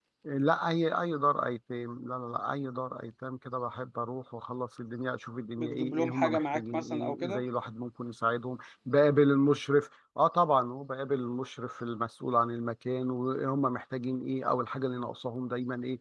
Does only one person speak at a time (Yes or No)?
No